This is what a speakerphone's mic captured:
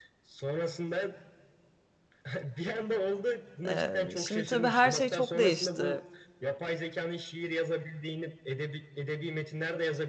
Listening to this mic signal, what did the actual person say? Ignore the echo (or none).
Ee, şimdi tabii her şey çok değişti.